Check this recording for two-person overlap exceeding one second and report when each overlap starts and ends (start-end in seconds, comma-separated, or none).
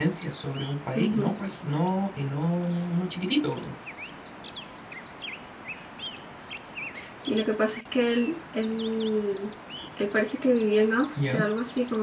none